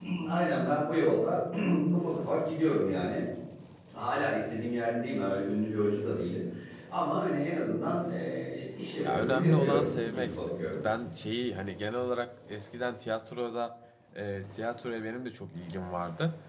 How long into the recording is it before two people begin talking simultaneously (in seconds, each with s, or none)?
9.0 s